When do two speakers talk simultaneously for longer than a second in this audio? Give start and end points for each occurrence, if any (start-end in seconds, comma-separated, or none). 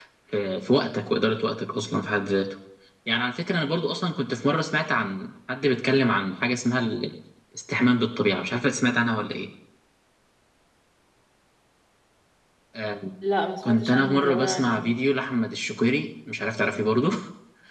13.6-14.8